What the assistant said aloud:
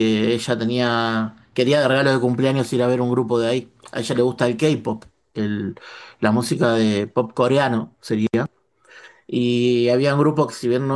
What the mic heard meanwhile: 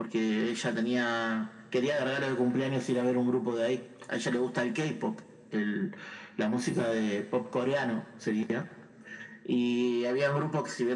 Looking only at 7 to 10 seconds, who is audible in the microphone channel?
echo only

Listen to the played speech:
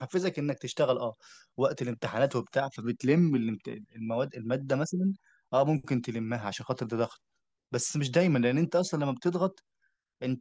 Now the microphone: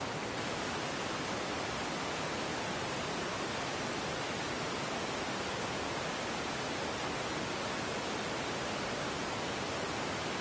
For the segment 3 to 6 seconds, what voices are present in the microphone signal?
neither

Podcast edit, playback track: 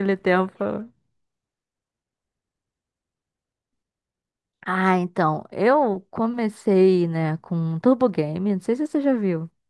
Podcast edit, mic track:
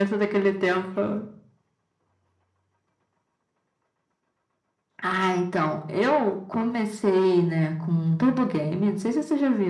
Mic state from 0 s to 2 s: echo only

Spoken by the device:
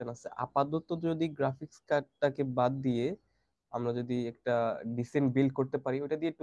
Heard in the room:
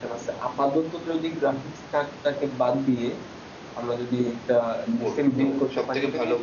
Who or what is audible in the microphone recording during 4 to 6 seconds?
both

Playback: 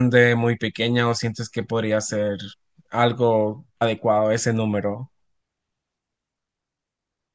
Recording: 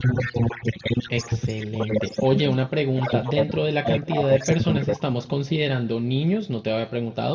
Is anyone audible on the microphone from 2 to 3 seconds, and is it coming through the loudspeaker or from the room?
both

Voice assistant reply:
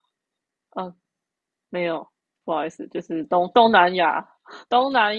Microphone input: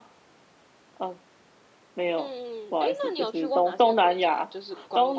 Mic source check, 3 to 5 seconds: both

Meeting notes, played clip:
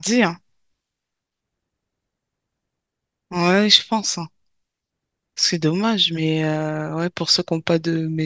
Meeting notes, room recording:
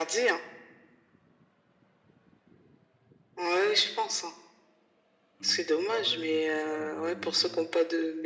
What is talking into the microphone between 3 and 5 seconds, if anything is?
echo only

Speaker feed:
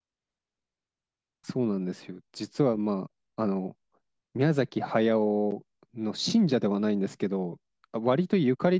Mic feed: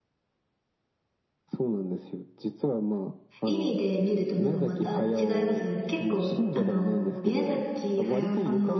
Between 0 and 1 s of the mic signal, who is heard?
neither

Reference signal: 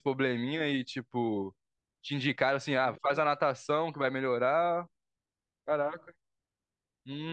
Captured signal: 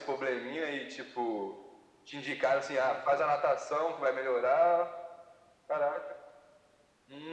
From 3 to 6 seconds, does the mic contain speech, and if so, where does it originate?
echo only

